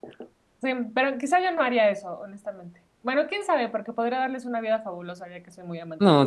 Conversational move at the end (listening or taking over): taking over